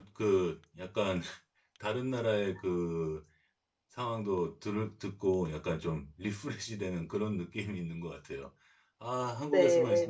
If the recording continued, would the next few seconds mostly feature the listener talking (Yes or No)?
No